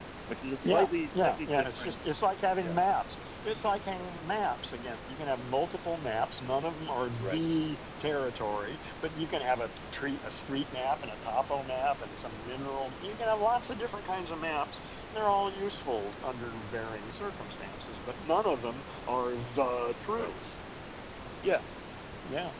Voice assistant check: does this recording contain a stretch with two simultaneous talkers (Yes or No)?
Yes